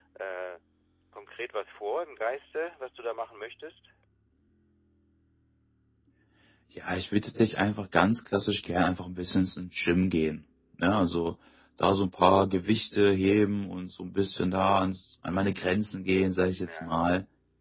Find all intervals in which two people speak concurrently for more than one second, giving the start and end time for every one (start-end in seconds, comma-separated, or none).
none